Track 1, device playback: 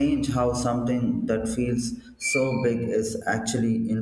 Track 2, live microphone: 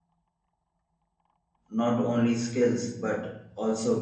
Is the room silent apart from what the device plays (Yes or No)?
No